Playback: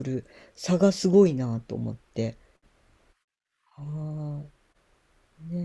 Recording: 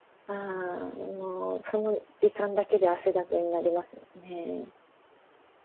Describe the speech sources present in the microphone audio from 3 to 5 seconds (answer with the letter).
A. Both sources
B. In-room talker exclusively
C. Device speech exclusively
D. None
B